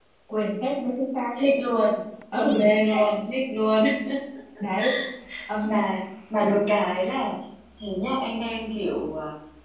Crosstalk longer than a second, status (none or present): none